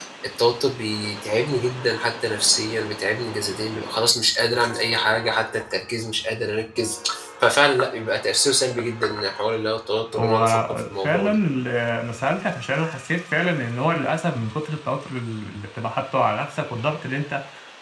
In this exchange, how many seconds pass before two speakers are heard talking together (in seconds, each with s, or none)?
10.1 s